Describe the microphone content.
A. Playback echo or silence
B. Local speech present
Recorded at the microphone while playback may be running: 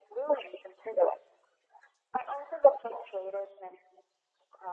A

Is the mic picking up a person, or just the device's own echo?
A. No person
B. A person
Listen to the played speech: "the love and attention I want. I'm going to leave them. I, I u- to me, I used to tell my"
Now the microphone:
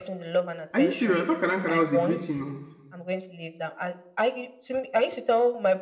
B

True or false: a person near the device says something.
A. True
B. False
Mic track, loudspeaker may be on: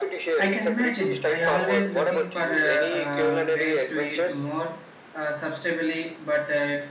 A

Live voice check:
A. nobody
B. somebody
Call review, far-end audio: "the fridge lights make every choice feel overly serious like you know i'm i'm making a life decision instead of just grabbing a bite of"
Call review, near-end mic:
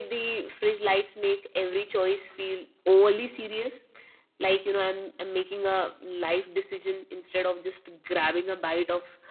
A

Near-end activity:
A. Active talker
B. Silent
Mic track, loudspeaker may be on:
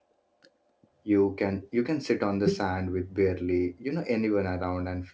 A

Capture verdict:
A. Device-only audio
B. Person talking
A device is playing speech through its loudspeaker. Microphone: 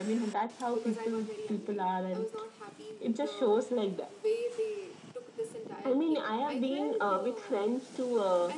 B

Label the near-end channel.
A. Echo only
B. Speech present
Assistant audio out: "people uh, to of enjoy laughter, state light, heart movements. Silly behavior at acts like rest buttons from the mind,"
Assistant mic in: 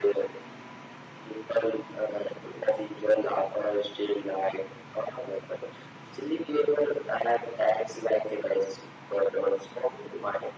A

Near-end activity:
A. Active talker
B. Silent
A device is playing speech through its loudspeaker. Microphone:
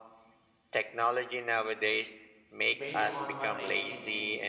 A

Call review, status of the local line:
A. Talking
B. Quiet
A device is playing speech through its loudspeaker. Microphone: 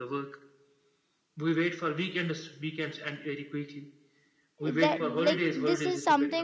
A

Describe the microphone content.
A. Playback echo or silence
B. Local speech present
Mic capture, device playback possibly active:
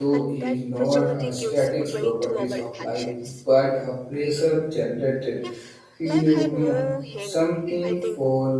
B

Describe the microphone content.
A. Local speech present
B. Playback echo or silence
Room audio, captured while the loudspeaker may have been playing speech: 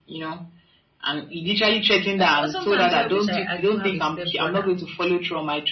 A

